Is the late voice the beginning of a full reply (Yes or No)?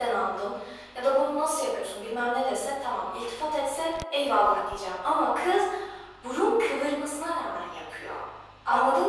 No